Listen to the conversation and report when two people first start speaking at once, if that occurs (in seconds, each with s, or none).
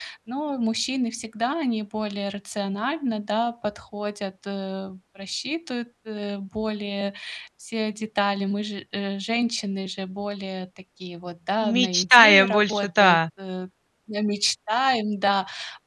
11.6 s